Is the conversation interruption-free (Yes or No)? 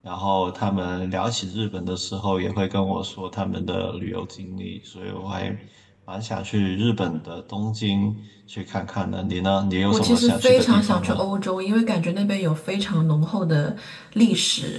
No